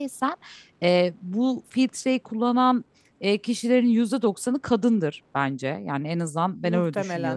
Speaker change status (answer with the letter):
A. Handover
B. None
B